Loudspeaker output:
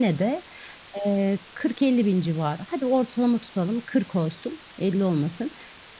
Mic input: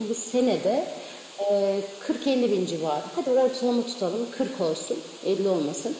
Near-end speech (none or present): none